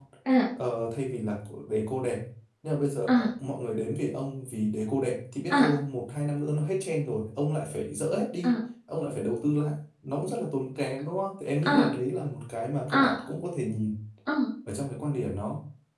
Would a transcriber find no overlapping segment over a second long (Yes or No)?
Yes